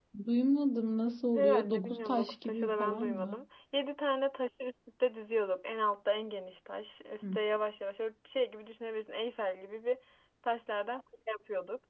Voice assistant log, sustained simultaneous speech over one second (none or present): present